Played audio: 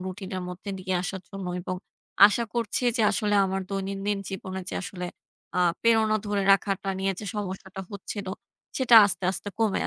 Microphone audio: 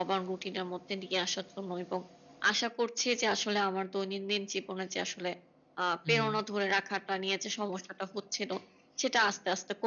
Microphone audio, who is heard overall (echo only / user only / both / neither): both